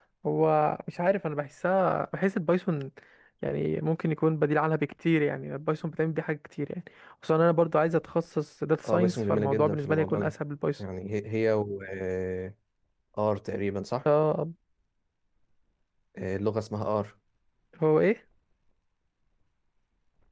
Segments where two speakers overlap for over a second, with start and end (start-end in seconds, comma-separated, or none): 8.8-10.3